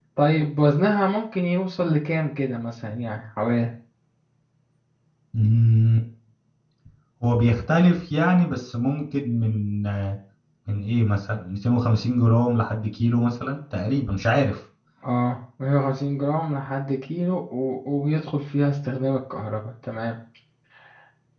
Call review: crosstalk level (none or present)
none